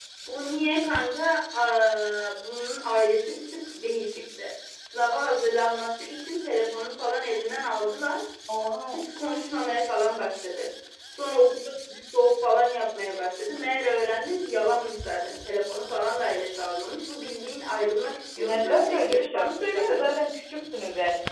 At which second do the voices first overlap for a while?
18.4 s

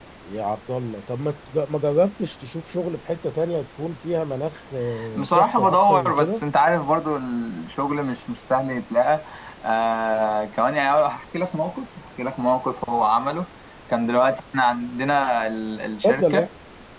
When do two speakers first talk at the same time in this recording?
5.2 s

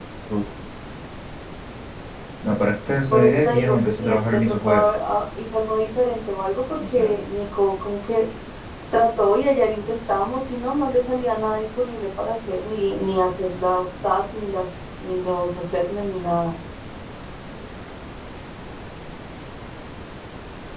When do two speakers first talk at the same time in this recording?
3.1 s

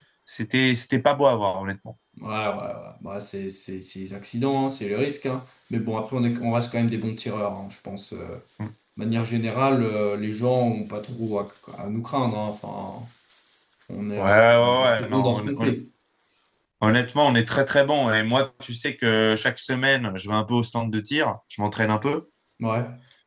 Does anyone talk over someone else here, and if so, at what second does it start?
14.2 s

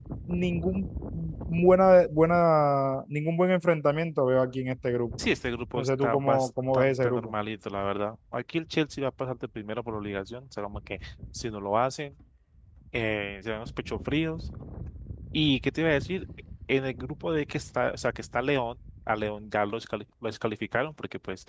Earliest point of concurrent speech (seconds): 5.8 s

